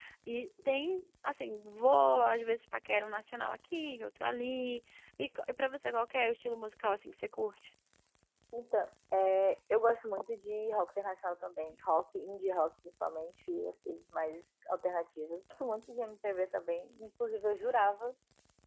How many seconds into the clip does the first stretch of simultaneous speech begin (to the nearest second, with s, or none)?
none